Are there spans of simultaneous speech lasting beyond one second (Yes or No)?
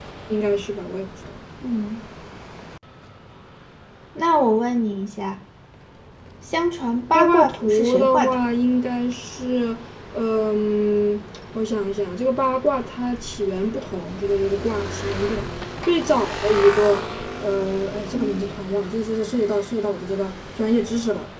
Yes